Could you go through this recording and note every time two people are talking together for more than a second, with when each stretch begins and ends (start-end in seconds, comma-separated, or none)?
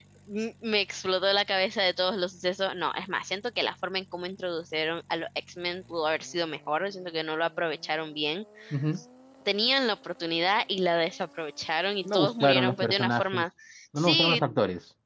12.0-13.4